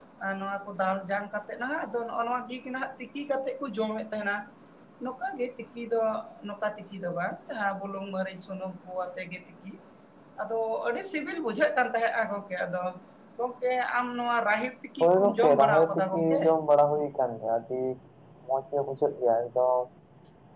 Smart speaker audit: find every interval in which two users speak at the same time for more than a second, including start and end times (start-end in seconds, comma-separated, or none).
15.0-16.4